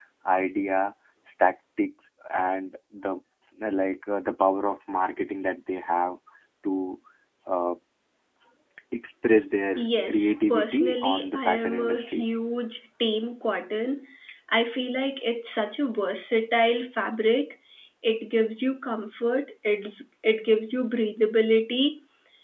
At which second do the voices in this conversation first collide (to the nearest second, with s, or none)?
10 s